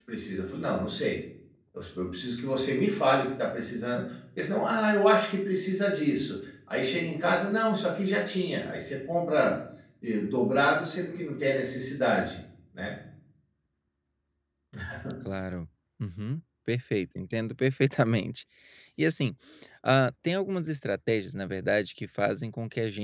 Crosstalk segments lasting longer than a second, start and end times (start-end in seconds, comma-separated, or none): none